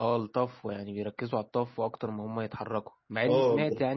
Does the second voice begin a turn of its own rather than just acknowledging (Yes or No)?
No